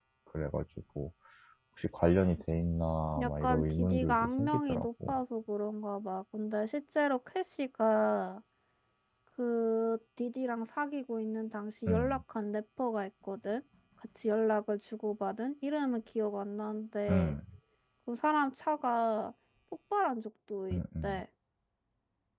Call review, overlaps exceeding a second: present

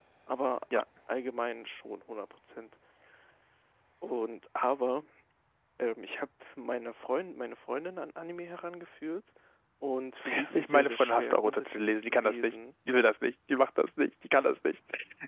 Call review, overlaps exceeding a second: present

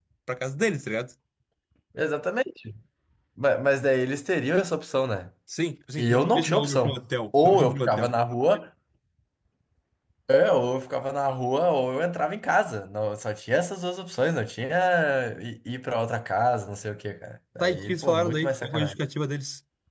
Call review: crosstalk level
present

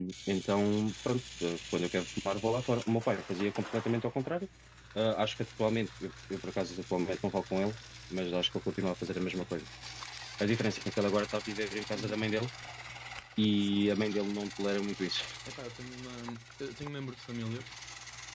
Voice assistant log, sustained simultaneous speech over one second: none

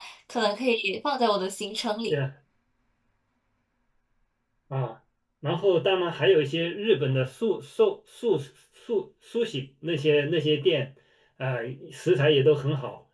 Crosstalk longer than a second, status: none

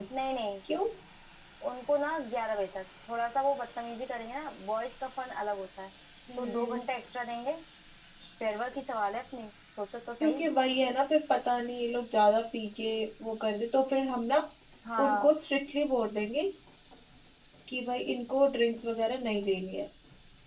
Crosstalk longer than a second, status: none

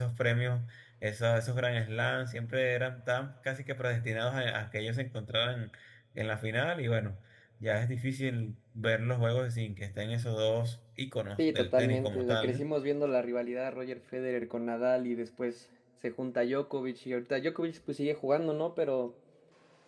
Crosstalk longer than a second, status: present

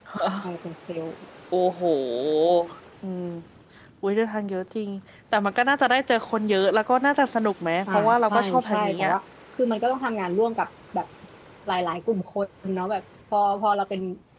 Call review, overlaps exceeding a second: present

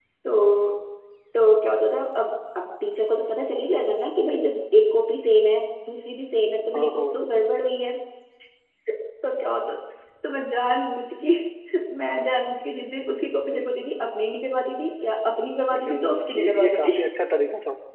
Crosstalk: present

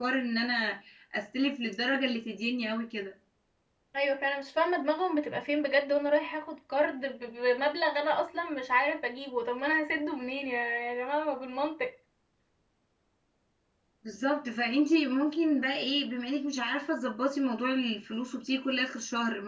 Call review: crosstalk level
none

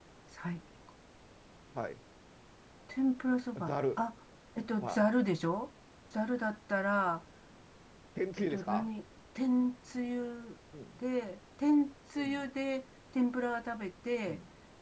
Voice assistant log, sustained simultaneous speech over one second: none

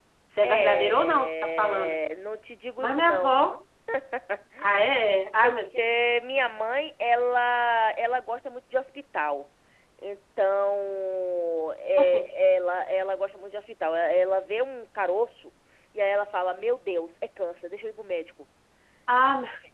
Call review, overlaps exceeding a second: present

